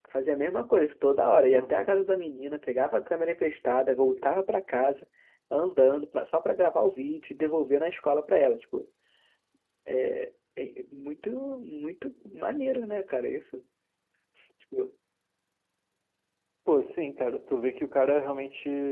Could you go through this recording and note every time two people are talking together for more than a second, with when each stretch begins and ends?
none

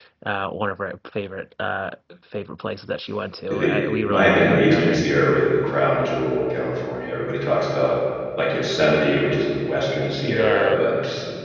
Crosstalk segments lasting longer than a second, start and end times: 3.5-5.0

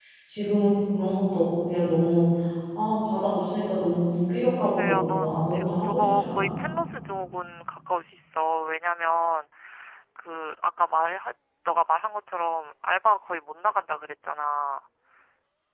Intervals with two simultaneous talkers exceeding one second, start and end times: 4.4-6.6

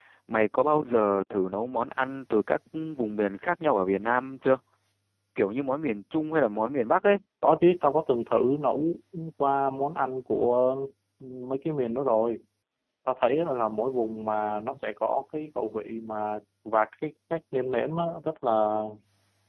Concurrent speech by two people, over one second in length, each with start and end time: none

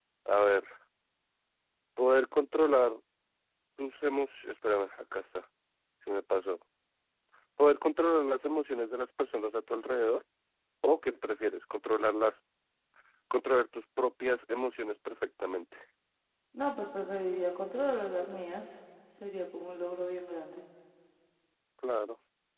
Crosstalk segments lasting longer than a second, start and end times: none

